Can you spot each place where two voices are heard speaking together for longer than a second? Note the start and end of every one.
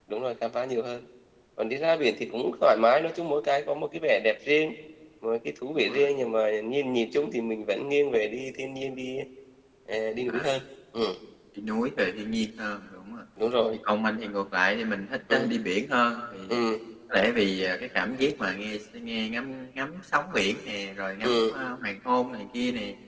none

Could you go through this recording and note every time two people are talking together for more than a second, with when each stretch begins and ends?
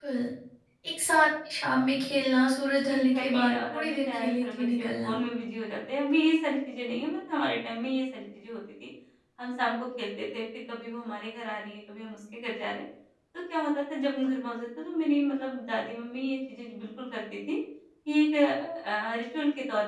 2.9-5.1

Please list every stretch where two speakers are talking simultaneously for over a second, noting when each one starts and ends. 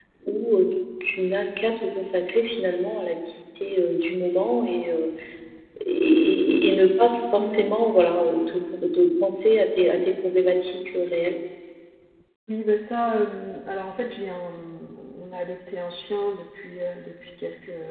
none

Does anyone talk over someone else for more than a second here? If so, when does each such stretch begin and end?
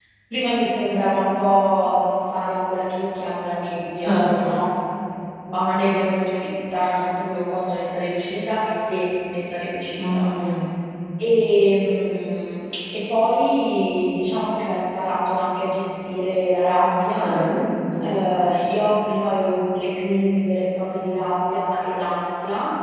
none

